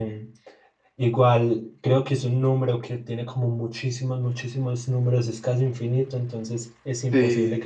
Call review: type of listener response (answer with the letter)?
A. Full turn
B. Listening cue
B